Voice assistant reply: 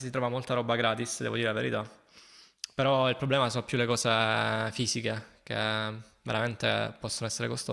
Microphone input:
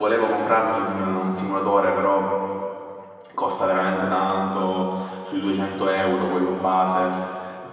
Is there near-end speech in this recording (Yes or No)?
Yes